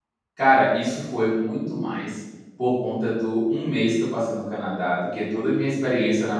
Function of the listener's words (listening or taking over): listening